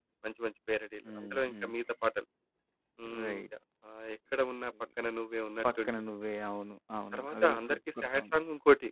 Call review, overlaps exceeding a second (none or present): present